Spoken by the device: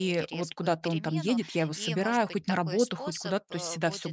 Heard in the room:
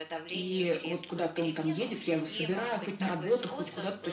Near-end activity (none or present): none